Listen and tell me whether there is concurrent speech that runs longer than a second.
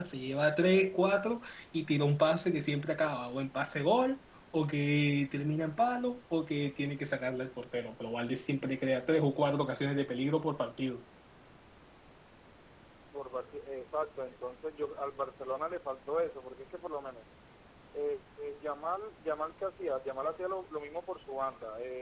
No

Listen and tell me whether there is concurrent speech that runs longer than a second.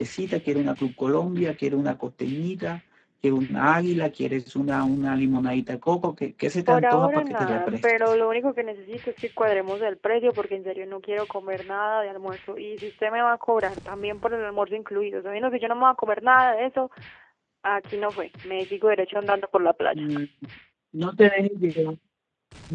Yes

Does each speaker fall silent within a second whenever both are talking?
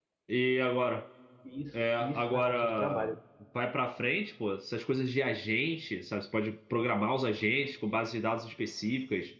No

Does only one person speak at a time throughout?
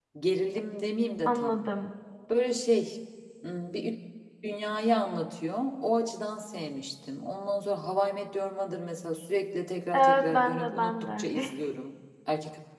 No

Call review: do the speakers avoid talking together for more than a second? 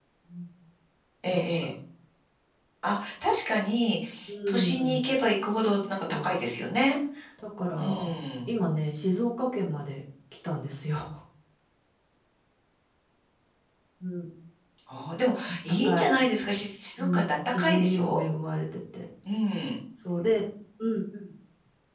No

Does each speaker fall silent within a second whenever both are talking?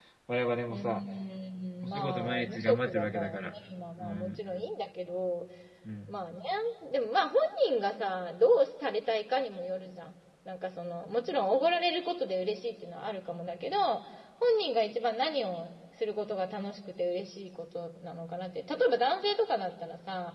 No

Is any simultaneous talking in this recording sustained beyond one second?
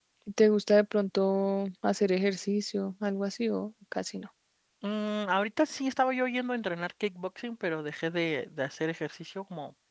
No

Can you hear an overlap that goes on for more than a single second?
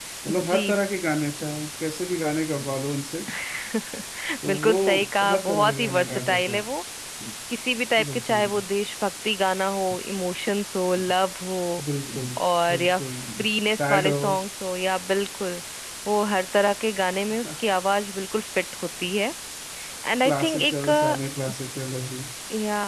Yes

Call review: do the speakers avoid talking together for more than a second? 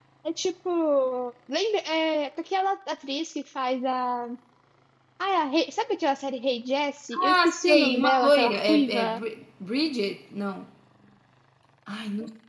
No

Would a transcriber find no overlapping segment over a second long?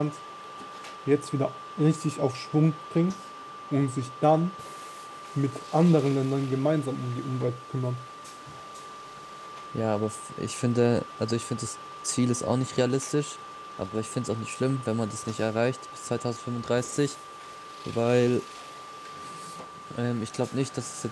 Yes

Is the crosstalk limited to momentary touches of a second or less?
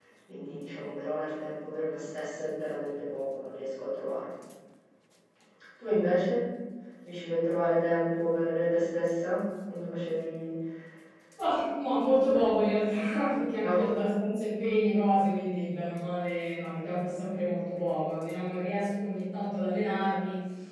Yes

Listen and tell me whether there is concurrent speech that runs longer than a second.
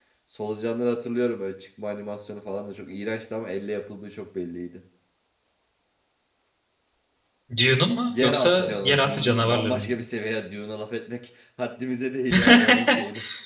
Yes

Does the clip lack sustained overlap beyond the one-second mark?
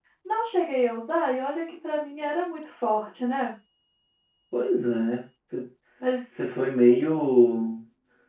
Yes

